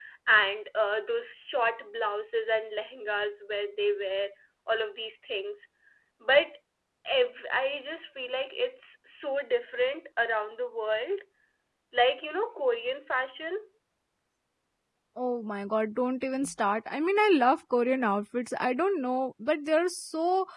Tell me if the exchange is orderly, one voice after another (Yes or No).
Yes